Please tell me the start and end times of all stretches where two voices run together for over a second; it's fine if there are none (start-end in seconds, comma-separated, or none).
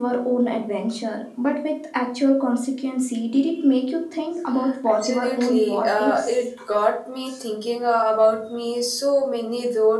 4.9-6.5